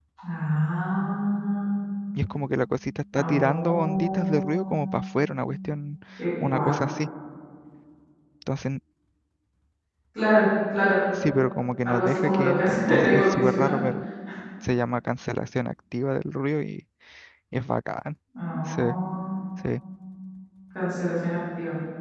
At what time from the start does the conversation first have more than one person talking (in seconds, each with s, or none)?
3.1 s